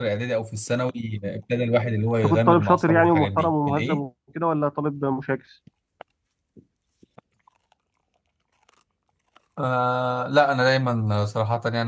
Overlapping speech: Yes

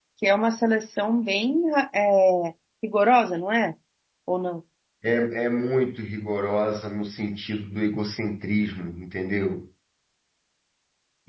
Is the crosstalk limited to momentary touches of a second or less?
Yes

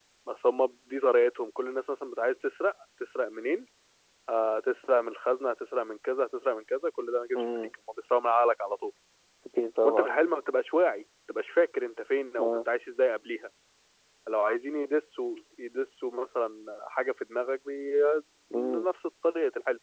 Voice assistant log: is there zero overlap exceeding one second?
Yes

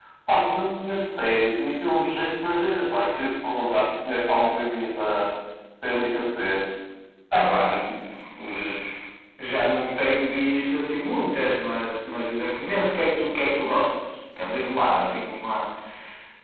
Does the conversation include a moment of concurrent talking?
No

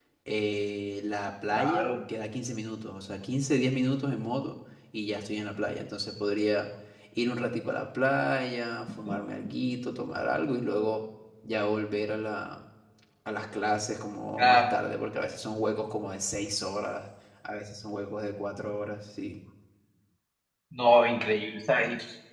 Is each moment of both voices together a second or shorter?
Yes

